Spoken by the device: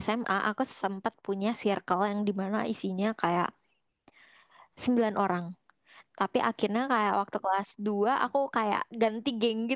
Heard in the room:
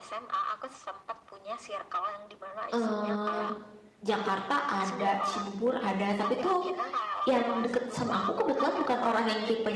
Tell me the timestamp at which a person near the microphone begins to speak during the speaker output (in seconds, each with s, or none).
2.7 s